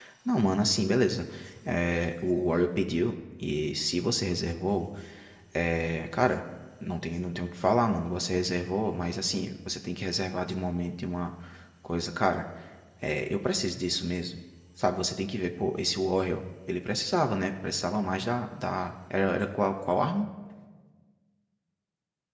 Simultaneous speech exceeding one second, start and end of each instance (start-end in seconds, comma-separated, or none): none